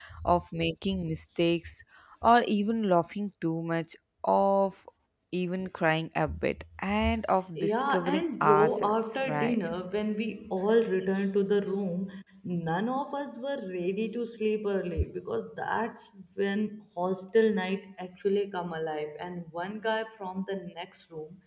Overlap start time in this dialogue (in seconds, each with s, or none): 7.6 s